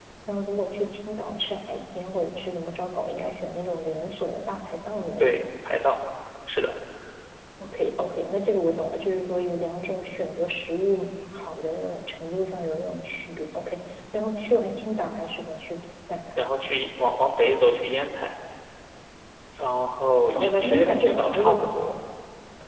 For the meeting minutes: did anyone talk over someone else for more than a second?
Yes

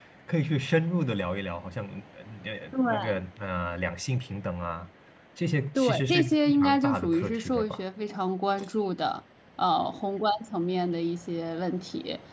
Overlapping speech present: Yes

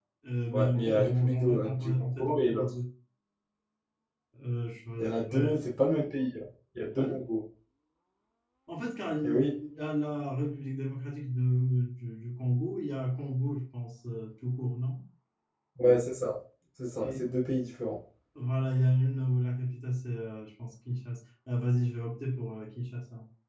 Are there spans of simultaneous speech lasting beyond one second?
Yes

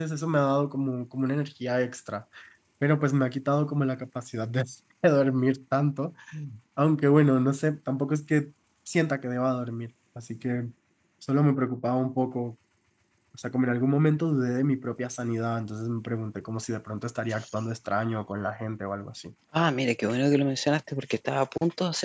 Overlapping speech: No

